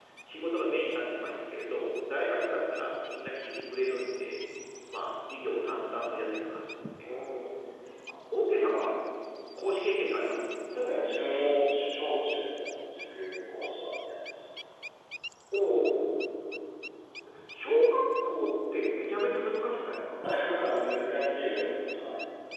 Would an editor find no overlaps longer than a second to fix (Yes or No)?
Yes